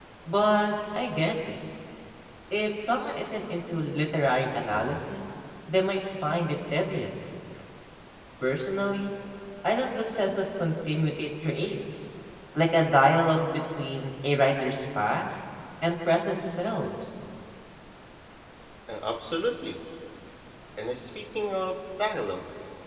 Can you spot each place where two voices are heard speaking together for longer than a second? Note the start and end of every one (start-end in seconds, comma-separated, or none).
none